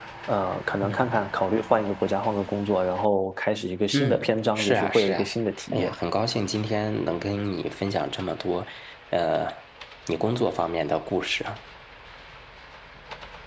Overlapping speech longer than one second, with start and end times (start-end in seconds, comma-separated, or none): 3.9-5.3